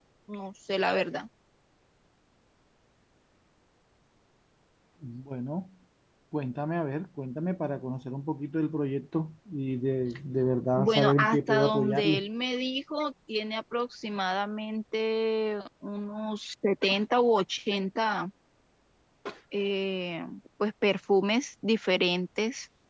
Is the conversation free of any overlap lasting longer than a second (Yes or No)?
No